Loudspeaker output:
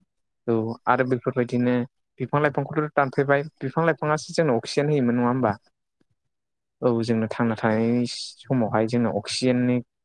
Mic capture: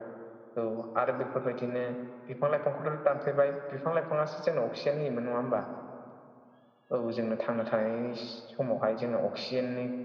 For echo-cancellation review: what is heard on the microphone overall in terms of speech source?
echo only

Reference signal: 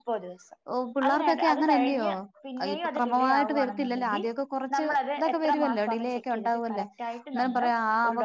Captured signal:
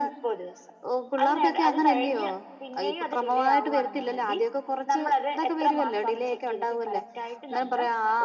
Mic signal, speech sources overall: echo only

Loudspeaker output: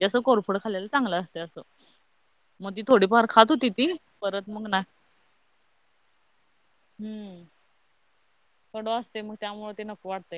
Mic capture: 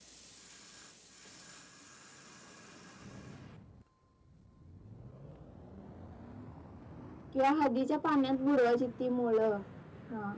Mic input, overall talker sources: user only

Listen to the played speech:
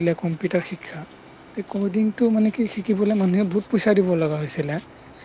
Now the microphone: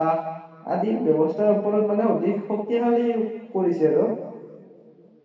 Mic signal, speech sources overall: user only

